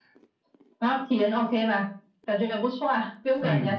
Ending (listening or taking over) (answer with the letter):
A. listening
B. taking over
B